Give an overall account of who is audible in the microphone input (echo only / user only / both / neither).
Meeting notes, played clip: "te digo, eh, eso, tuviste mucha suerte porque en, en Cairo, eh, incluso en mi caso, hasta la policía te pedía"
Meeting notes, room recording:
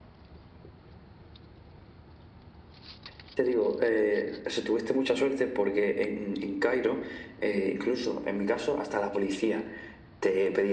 echo only